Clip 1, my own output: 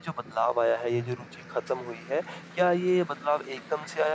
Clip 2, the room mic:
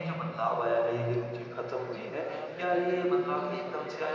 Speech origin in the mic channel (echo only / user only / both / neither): both